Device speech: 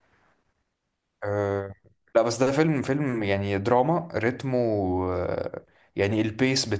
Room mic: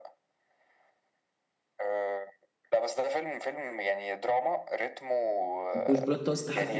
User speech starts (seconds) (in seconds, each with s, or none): 5.7 s